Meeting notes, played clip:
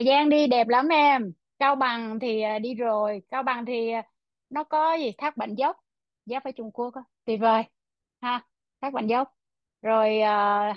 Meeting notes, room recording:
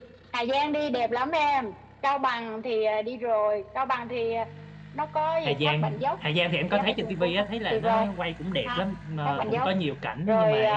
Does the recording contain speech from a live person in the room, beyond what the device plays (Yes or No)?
Yes